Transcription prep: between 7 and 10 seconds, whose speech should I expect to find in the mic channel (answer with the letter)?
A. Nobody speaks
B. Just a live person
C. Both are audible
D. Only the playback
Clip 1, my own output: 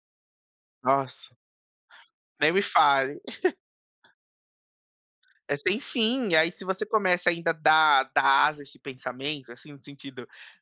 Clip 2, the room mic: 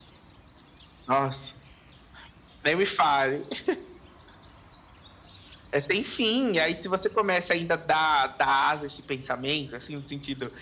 D